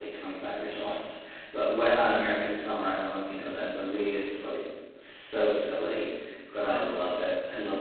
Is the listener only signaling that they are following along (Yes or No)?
Yes